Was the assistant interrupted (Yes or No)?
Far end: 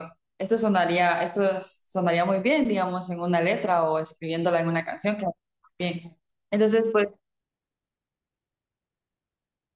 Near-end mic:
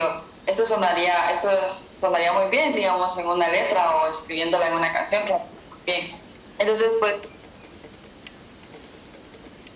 No